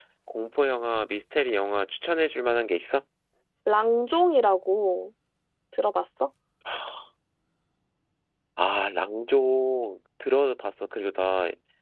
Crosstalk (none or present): none